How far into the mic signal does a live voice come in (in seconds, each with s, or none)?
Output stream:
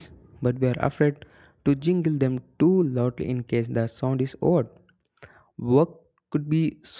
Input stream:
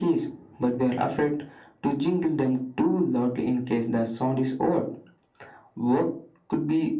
none